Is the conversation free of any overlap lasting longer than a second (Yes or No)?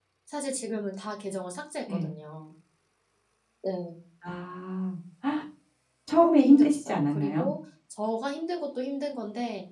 No